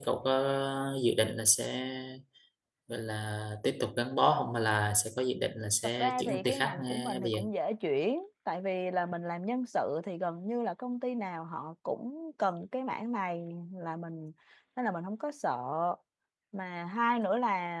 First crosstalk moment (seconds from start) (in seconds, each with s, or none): 6.0 s